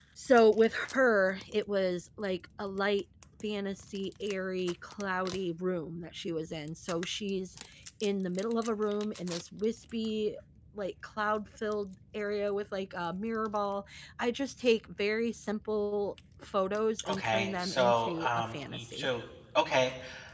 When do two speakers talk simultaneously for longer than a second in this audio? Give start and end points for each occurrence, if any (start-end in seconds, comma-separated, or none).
17.1-19.1